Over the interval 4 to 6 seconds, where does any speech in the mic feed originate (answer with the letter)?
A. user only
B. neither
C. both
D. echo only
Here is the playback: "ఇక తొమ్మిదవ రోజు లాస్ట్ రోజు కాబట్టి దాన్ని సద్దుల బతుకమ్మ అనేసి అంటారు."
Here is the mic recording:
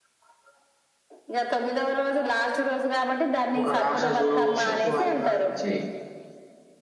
C